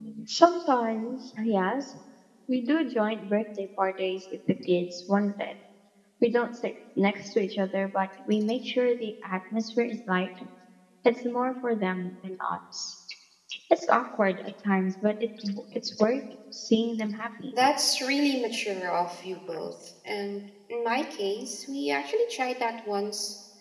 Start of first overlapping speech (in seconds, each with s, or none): none